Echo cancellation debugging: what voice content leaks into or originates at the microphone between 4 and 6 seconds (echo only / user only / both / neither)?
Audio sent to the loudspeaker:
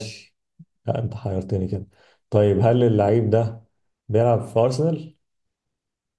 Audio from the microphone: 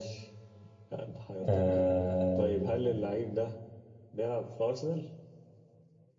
echo only